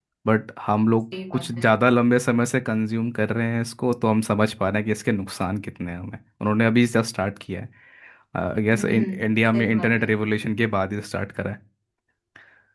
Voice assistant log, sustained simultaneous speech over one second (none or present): present